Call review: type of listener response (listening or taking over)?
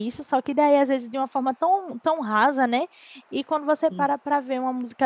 listening